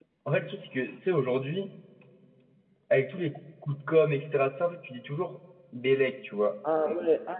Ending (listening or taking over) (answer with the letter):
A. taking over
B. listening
A